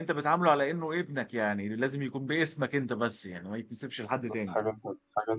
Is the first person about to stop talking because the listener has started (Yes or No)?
Yes